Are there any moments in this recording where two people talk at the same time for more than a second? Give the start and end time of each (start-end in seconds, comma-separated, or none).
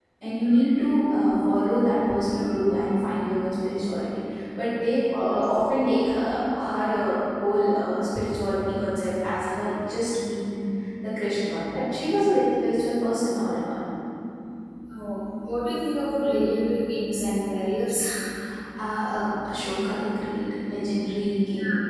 none